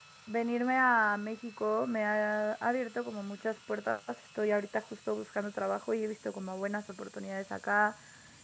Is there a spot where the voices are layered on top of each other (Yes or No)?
No